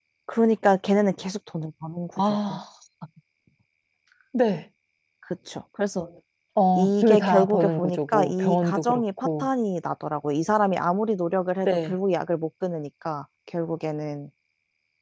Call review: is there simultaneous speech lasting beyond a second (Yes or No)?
Yes